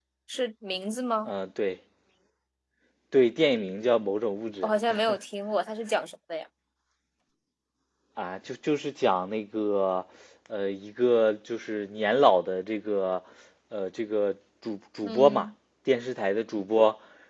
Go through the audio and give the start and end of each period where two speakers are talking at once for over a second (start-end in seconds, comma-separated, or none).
none